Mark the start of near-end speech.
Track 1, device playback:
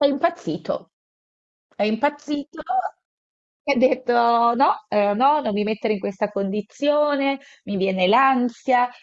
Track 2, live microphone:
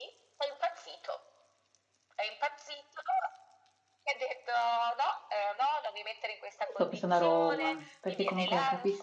6.7 s

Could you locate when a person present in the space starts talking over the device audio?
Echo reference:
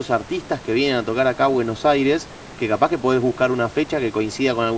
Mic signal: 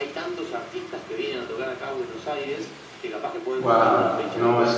3.6 s

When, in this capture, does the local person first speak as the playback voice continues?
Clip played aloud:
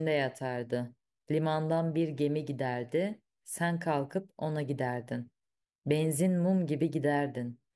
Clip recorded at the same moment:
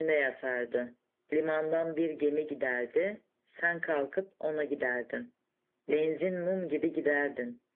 none

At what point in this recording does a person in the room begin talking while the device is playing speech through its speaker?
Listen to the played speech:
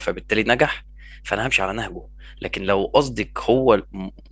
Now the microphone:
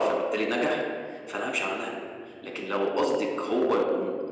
none

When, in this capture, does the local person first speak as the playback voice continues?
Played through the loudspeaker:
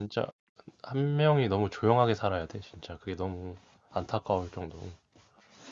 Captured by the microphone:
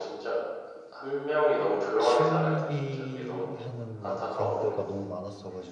2.0 s

